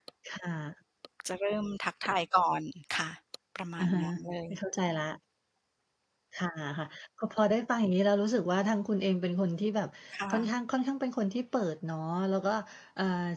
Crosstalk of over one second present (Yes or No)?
No